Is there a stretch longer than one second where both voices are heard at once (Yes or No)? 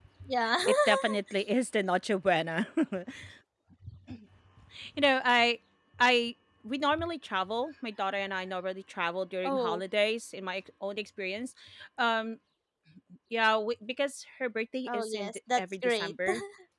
Yes